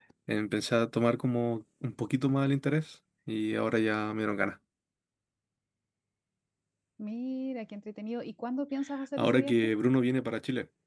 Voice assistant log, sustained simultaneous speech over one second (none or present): none